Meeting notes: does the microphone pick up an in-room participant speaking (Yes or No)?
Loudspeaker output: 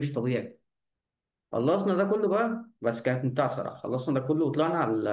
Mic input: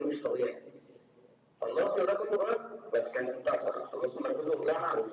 No